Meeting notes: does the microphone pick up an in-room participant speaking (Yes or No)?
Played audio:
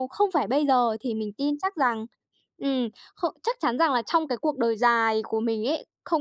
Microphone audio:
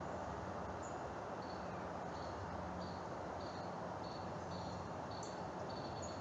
No